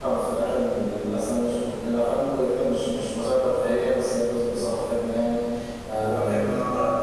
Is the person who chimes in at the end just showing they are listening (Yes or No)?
No